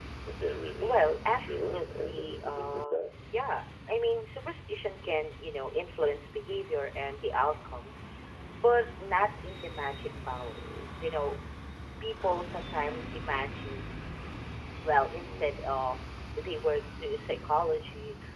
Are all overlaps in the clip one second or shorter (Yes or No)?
No